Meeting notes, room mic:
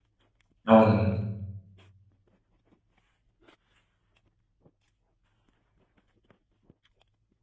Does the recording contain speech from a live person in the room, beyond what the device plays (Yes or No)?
Yes